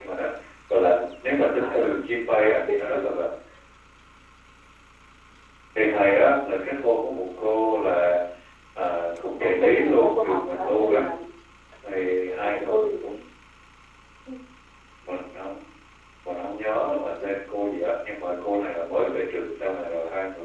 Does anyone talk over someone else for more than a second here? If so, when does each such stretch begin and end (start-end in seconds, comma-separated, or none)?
9.4-11.1